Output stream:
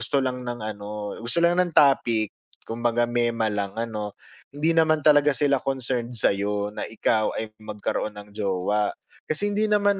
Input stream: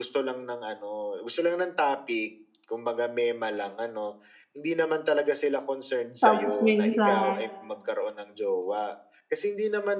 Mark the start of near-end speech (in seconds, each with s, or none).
6.2 s